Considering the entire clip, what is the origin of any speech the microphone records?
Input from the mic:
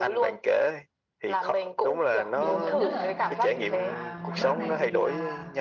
both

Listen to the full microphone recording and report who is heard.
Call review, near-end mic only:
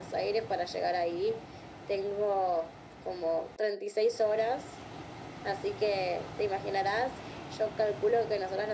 echo only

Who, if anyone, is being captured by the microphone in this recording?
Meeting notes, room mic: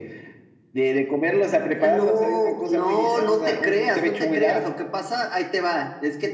echo only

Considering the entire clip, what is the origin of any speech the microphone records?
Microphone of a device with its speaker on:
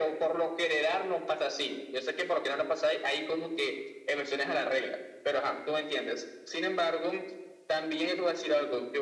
echo only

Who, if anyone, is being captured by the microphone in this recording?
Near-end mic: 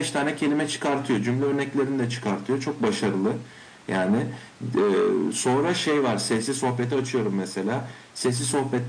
echo only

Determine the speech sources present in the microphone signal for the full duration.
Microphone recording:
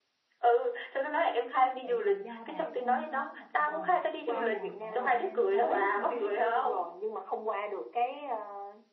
both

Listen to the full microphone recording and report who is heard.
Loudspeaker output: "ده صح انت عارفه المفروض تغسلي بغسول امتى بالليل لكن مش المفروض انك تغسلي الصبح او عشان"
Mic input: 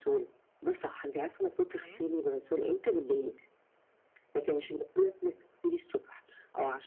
both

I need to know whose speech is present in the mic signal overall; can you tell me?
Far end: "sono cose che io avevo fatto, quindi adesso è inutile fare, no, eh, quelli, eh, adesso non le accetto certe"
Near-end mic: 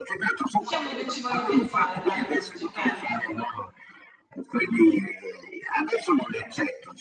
both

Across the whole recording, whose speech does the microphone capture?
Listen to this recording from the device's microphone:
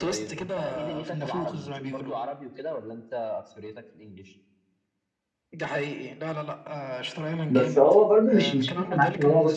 both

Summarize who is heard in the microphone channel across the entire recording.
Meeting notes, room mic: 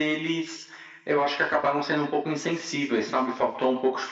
echo only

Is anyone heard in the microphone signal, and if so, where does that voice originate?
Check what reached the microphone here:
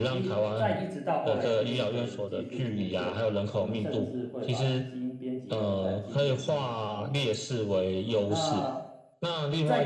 both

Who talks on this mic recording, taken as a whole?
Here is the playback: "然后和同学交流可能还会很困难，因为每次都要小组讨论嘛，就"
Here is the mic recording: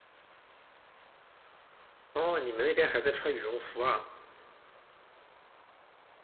user only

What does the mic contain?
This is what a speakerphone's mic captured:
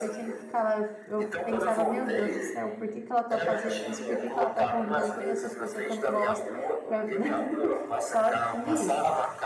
both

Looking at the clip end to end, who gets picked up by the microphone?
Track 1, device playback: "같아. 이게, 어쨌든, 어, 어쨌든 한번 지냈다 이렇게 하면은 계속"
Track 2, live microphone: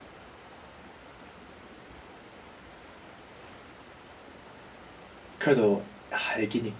user only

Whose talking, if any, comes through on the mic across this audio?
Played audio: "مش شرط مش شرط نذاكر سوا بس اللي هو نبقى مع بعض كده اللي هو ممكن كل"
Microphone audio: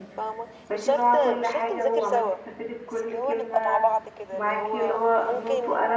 both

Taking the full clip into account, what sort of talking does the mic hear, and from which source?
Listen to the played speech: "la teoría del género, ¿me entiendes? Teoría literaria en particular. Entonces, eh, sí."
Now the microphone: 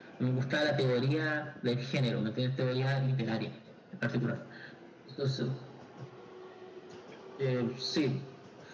echo only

